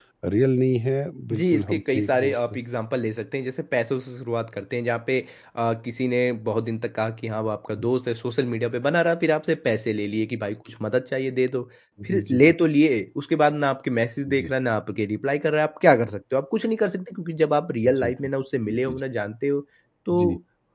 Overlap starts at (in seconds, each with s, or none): 1.3 s